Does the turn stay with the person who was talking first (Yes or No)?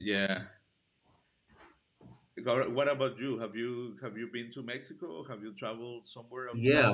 No